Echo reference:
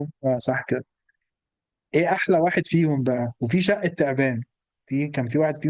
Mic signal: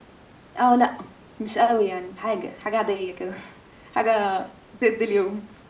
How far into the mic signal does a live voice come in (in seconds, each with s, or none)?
0.6 s